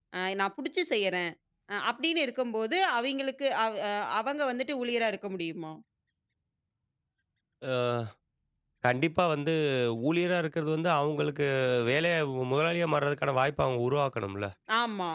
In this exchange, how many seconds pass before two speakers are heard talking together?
none

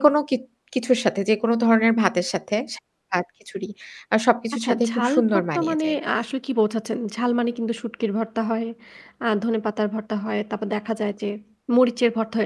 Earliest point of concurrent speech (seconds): 4.5 s

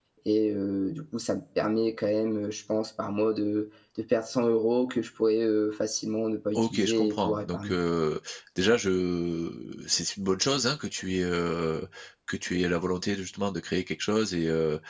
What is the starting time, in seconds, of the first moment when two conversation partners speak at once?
6.6 s

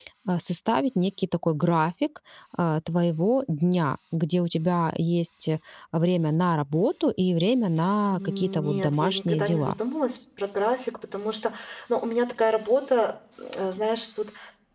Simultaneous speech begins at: 8.1 s

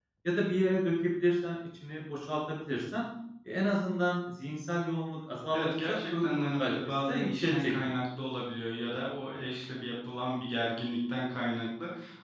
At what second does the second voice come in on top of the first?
5.5 s

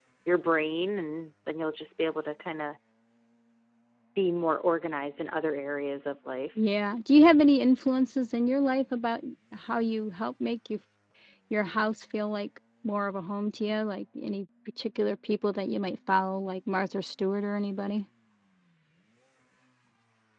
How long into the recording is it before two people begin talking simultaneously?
none

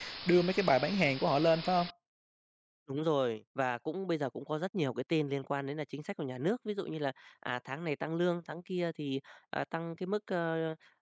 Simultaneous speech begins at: none

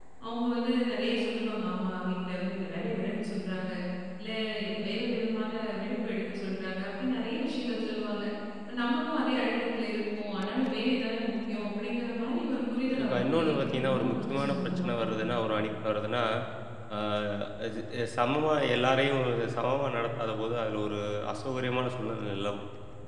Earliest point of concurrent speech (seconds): 12.9 s

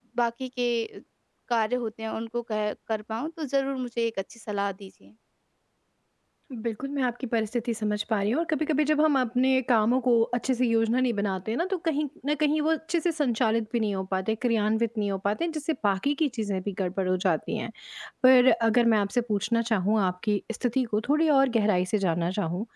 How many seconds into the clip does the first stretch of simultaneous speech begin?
none

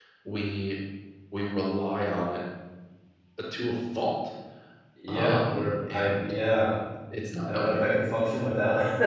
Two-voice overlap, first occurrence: 5.1 s

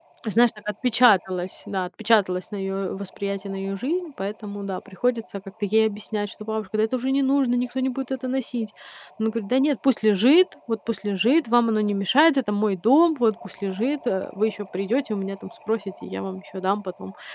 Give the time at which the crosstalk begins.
none

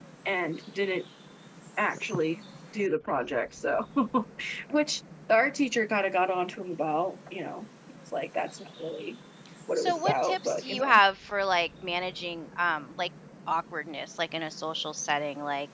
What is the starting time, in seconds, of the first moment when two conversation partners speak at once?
9.8 s

